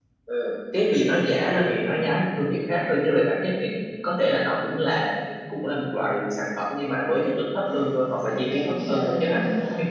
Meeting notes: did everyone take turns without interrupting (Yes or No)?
No